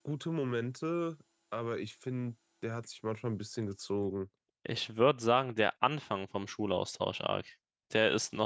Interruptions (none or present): none